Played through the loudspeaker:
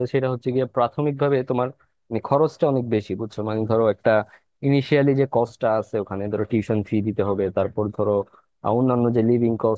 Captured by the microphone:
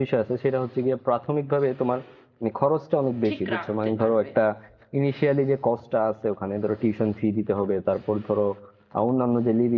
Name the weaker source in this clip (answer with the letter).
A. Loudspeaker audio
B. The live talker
B